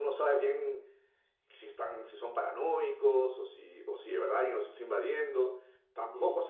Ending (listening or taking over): listening